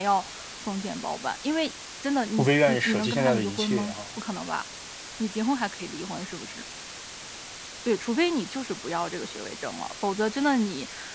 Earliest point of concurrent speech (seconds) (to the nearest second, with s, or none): 2 s